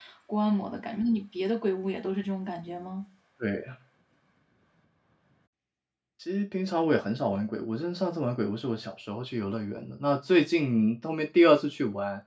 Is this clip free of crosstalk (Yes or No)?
Yes